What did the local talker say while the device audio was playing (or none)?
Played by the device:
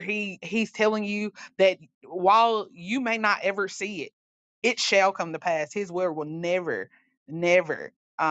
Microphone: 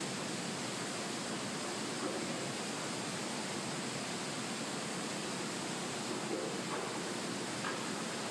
none